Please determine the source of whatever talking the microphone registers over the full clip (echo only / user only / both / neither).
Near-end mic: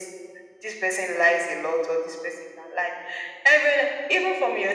echo only